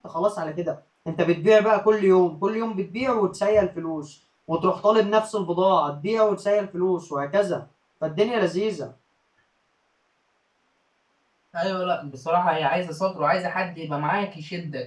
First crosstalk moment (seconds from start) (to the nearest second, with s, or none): none